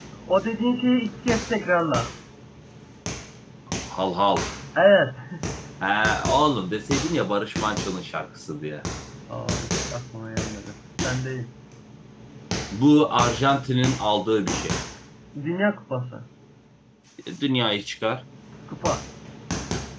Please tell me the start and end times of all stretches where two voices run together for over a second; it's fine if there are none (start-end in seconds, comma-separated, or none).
none